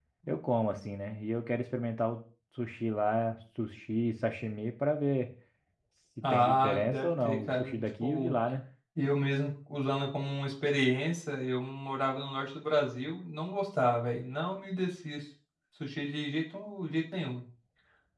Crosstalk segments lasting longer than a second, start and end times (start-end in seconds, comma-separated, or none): 6.3-8.3